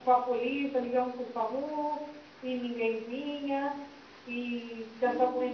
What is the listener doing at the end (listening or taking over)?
listening